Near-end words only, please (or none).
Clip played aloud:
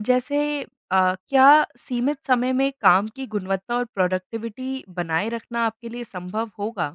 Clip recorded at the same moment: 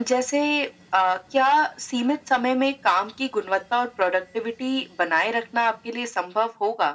none